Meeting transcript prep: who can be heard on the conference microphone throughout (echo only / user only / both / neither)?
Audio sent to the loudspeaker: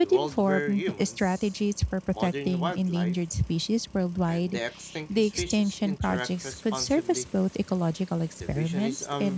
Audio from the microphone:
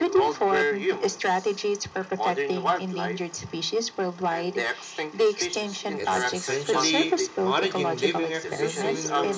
both